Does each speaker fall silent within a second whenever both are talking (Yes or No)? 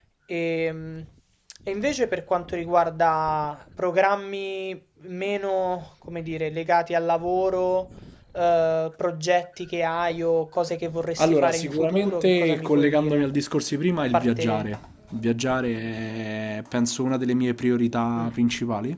No